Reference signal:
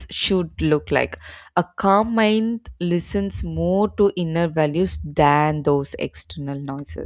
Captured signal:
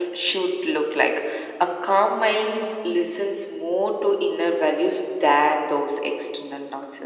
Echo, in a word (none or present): present